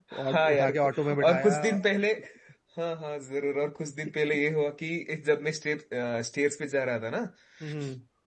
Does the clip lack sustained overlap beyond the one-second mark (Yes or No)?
No